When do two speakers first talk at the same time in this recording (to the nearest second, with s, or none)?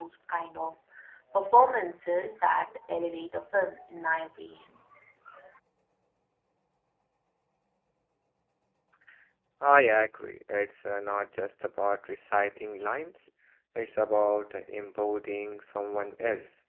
none